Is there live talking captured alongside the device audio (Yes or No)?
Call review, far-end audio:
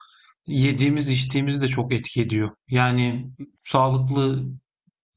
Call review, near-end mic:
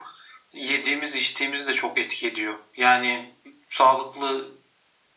No